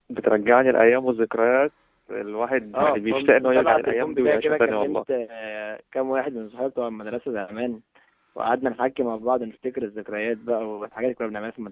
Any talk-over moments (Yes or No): Yes